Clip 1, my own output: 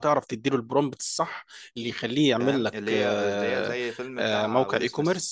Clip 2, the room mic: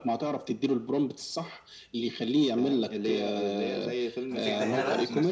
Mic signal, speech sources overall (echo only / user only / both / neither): both